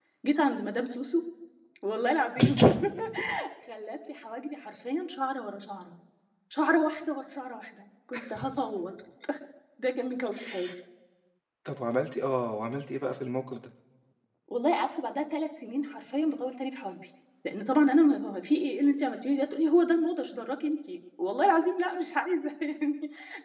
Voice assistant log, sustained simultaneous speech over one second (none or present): none